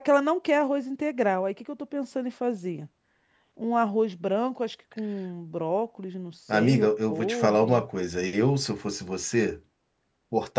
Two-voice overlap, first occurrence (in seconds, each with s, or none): 6.5 s